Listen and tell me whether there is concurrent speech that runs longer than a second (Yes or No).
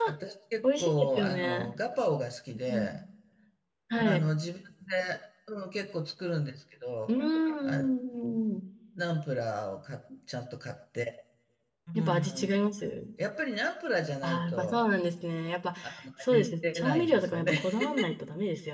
Yes